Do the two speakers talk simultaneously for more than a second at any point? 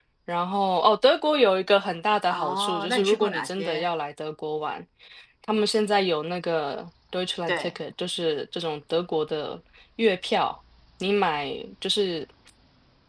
Yes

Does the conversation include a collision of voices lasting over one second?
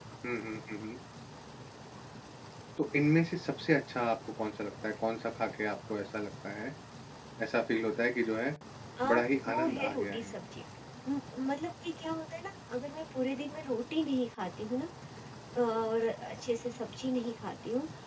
Yes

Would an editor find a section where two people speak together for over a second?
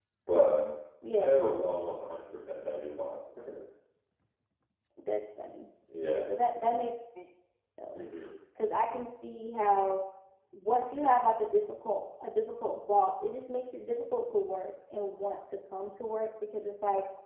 No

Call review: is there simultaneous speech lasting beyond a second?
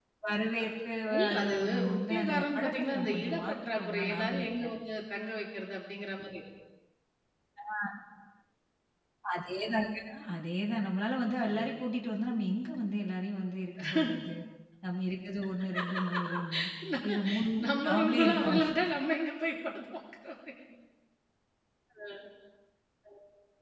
Yes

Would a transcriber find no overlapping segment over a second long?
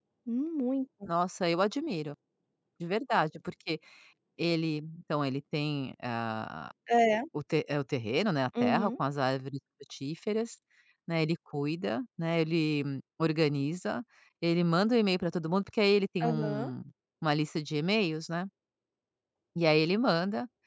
Yes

